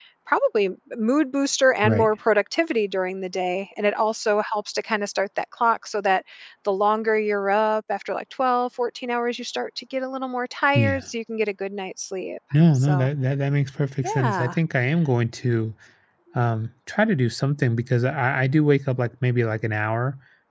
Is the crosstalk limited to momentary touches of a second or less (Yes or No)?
Yes